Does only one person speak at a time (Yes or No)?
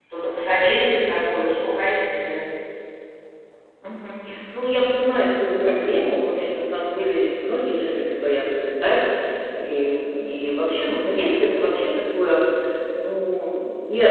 Yes